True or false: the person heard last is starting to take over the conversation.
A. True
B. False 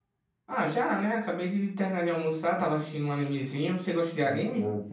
A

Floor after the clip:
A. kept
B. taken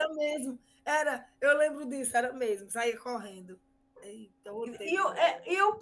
B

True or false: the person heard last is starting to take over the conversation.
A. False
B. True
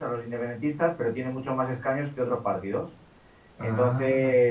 A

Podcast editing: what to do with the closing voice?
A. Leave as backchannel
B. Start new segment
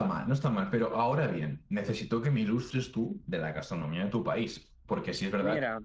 A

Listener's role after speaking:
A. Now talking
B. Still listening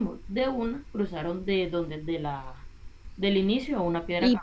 A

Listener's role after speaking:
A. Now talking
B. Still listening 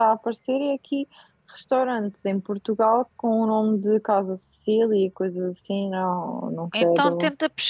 A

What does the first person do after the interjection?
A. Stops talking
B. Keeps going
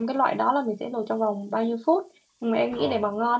B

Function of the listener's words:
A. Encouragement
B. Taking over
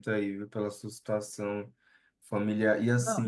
A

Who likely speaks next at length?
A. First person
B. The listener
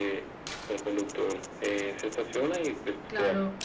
B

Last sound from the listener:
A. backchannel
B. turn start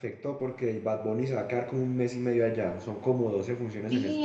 B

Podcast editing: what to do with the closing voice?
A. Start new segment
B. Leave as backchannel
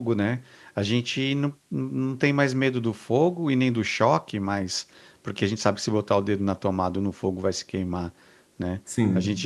B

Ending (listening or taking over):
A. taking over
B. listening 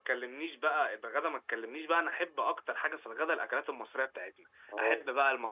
B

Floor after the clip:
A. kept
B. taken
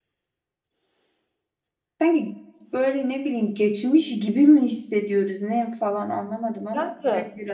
B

